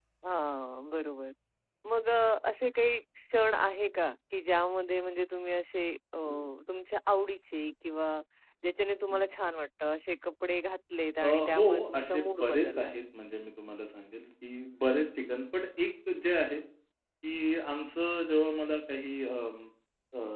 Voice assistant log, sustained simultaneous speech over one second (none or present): present